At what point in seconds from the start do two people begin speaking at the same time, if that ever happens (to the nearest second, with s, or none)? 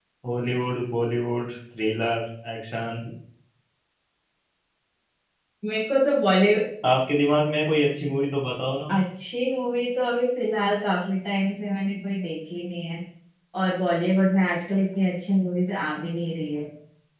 none